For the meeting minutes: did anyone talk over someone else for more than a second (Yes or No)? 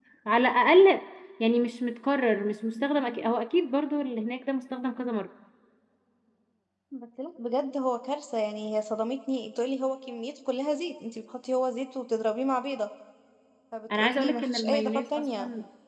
Yes